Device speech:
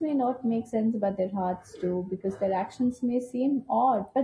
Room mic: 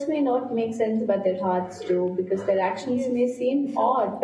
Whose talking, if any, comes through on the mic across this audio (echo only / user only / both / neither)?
both